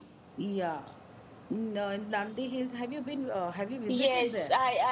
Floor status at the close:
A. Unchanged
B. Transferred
B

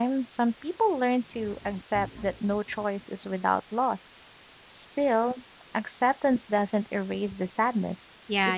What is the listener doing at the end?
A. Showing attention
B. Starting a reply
B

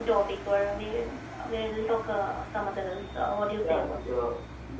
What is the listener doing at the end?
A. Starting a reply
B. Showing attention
A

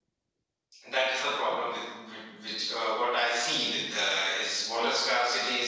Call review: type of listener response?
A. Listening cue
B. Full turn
A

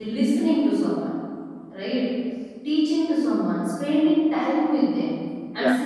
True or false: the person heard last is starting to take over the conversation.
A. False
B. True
A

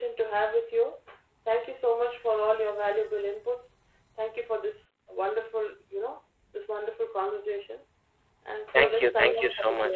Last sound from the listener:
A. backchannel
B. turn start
B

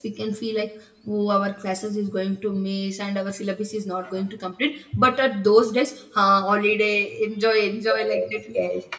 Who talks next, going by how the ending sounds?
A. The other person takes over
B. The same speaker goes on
A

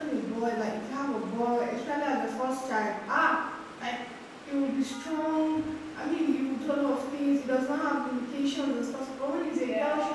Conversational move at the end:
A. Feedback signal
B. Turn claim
A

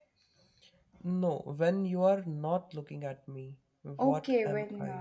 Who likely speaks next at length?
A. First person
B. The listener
B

